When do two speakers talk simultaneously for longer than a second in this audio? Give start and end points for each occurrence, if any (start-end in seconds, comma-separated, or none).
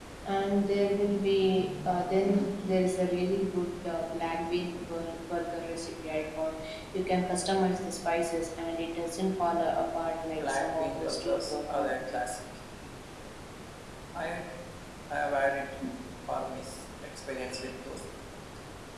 10.3-11.9